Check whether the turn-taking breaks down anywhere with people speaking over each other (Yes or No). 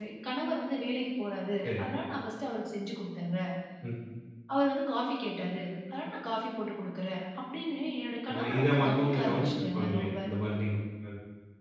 Yes